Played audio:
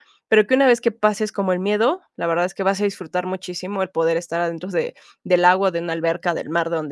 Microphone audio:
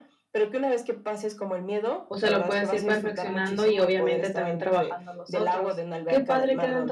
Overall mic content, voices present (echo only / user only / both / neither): both